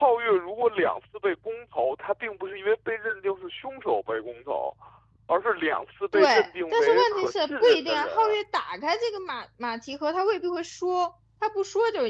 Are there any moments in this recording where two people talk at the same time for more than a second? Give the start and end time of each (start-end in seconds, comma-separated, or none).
6.7-8.3